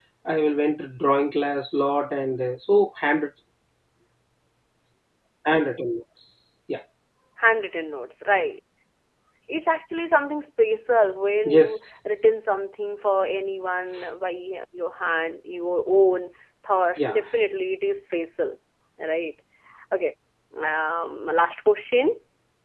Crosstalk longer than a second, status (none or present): none